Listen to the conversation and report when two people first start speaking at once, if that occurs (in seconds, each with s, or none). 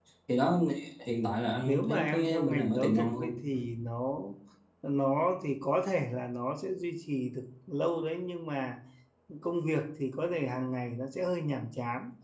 1.6 s